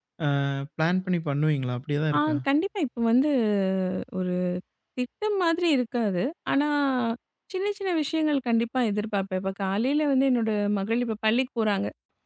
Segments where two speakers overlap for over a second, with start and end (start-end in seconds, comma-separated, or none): none